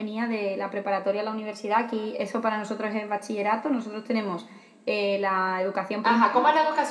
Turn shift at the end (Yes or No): Yes